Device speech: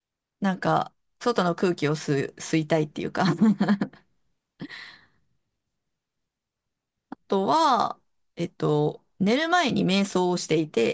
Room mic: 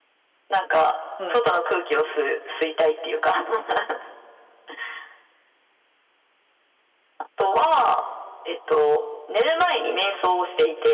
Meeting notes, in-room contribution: present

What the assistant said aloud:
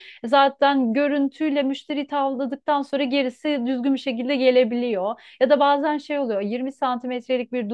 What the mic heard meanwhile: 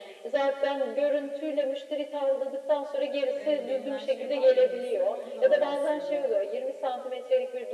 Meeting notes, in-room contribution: present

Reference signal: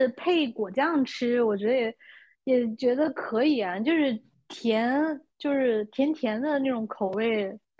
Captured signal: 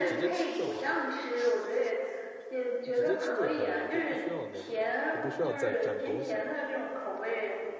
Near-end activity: present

